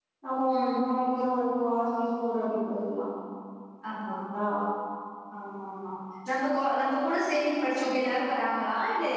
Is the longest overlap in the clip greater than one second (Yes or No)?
No